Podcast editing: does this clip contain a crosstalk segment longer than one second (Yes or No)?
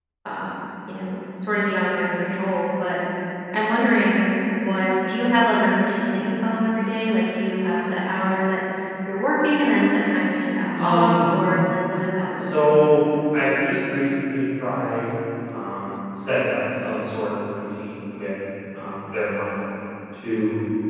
No